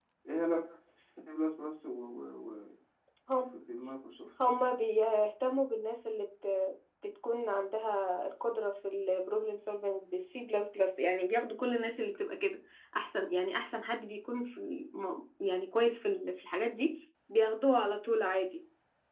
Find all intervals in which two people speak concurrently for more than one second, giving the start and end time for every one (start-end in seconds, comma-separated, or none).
none